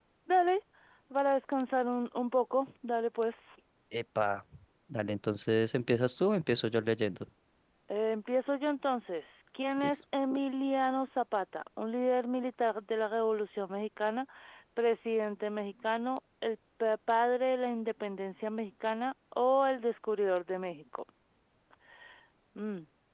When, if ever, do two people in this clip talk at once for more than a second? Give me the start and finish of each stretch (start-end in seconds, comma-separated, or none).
none